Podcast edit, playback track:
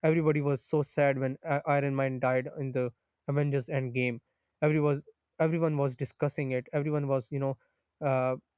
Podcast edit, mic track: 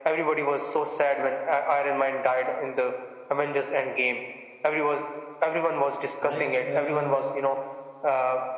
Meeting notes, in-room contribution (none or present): present